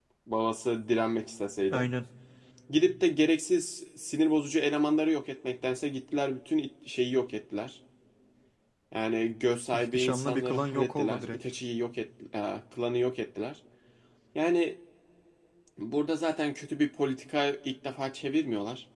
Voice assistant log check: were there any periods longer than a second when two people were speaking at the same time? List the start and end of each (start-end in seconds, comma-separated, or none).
9.7-11.5